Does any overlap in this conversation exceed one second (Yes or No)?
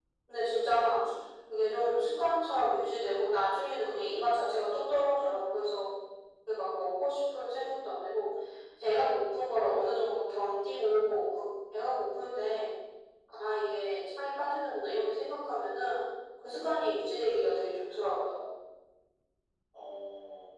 No